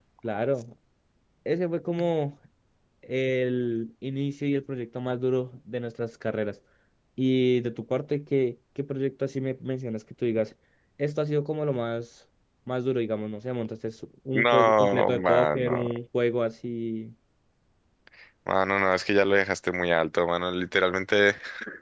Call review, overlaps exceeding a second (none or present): present